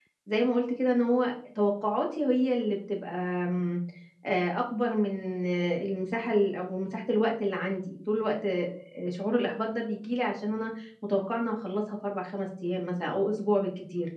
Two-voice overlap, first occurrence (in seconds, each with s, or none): none